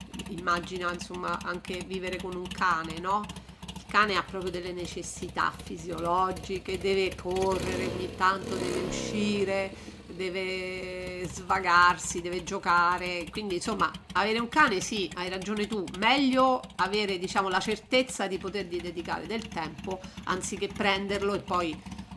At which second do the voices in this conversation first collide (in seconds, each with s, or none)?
none